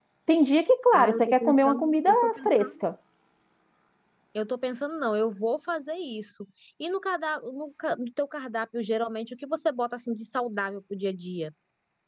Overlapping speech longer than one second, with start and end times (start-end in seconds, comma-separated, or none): 0.9-2.9